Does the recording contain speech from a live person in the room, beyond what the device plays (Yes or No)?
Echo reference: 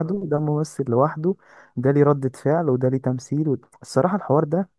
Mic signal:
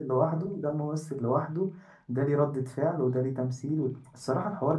No